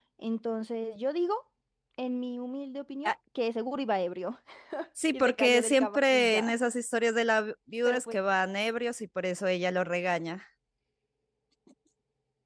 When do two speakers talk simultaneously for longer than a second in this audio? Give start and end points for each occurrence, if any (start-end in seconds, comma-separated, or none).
5.1-6.5